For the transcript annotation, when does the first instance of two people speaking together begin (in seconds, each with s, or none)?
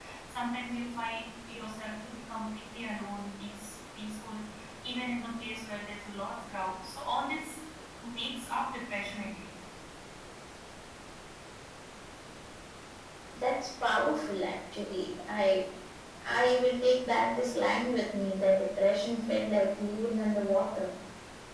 none